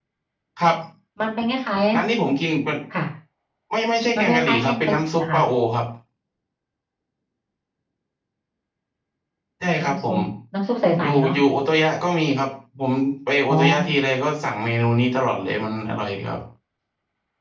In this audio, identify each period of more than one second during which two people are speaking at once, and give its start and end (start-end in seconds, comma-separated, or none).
4.2-5.4